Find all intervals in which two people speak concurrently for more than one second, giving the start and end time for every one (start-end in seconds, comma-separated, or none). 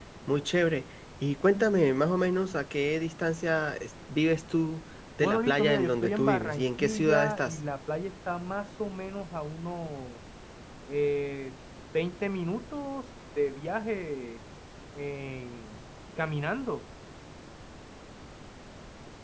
5.2-7.6